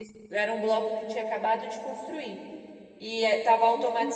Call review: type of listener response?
listening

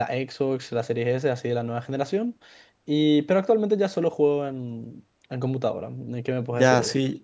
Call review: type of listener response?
taking over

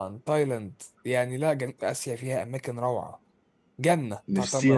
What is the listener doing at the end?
taking over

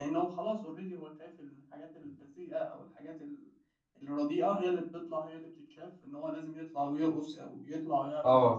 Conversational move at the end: taking over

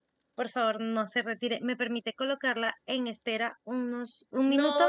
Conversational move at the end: taking over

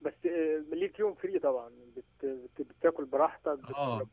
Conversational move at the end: taking over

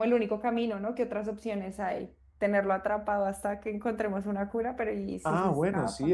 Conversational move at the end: taking over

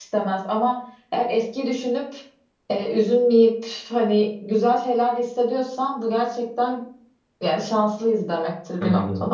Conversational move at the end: taking over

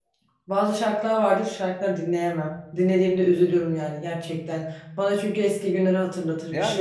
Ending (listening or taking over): taking over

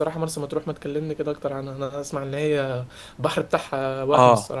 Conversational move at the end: taking over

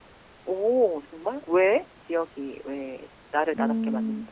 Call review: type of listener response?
taking over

